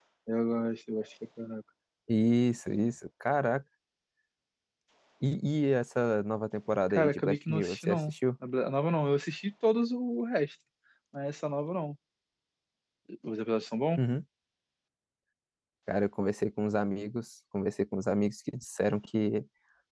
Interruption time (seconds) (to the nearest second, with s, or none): 7 s